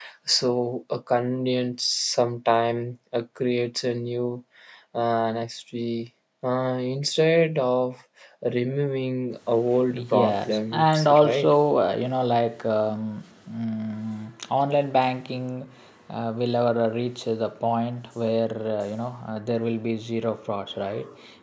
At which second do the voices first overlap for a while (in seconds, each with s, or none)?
9.9 s